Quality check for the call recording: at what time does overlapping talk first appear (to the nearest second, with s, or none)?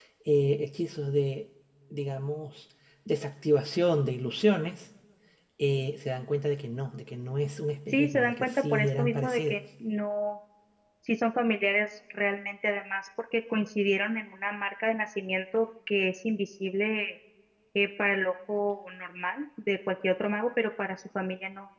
8 s